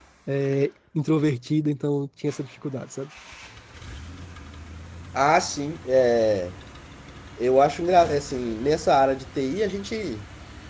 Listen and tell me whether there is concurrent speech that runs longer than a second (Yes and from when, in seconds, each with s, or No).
No